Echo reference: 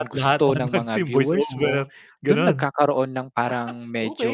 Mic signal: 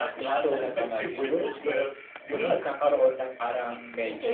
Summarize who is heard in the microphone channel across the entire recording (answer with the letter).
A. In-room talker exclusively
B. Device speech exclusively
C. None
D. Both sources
B